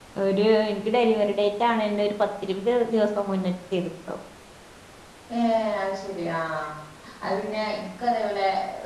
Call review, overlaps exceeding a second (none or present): none